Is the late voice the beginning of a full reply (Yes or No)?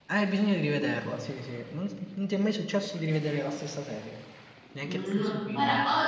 Yes